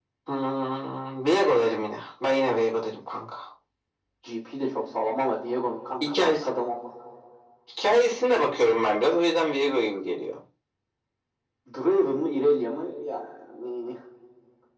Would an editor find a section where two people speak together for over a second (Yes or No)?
No